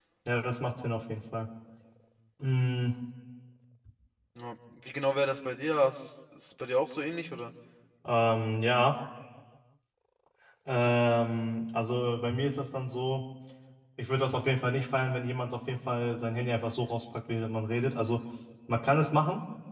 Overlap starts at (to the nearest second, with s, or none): none